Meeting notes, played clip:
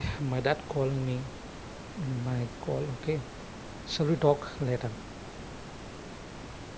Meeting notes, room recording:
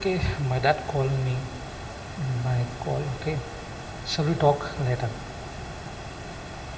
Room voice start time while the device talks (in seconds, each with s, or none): none